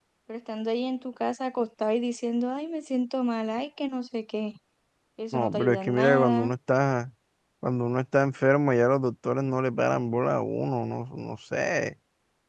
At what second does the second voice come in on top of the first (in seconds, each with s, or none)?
5.3 s